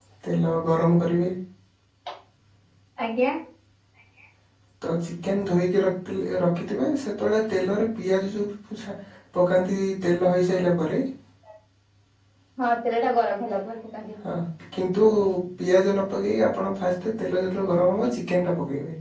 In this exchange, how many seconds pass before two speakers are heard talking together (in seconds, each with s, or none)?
none